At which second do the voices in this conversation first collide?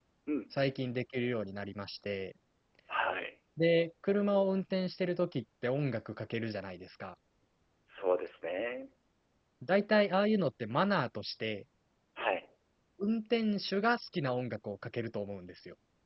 none

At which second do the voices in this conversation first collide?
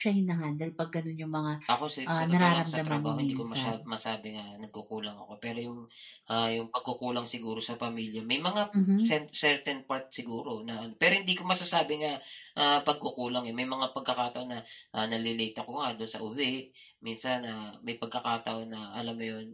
2.1 s

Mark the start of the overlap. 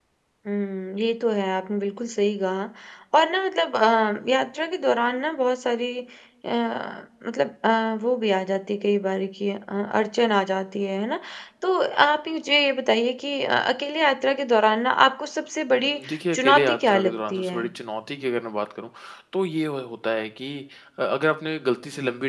15.7 s

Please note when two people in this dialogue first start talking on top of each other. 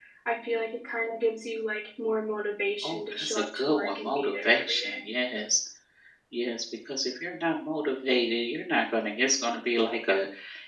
2.8 s

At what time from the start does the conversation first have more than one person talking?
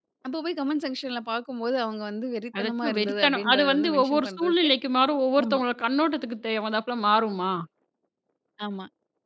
2.5 s

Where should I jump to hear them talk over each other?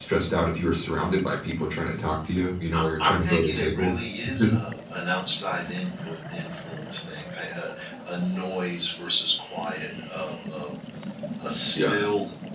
2.7 s

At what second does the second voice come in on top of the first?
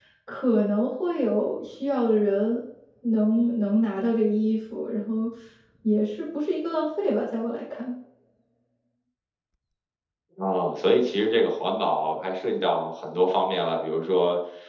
none

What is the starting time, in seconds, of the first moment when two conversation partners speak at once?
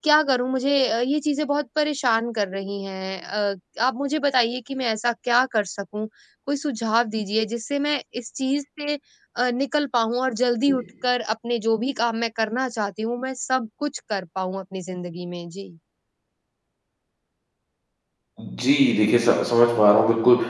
none

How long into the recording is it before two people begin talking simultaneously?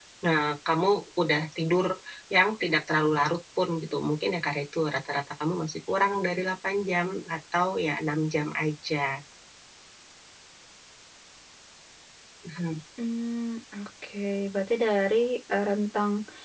none

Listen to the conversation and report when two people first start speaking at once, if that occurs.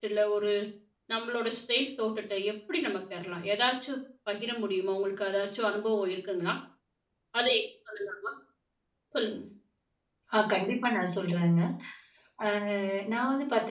none

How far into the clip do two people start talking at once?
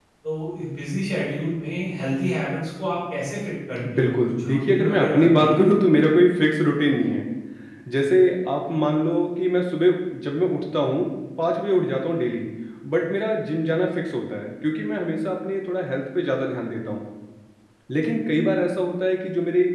3.8 s

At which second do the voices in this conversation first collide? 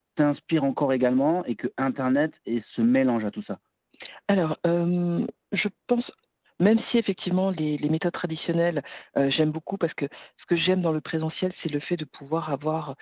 none

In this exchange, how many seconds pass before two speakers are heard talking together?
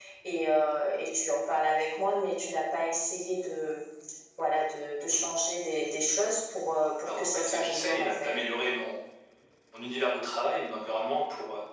7.0 s

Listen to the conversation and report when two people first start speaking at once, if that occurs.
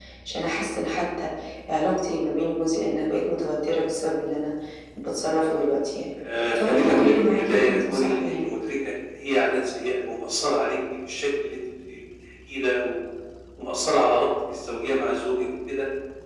6.5 s

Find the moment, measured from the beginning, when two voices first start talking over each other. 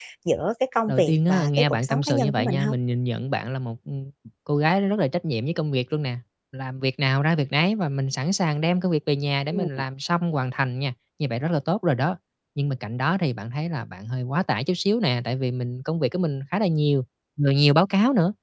0.9 s

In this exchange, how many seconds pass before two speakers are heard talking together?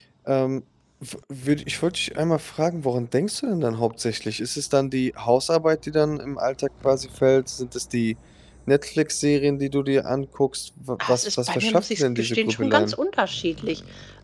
11.0 s

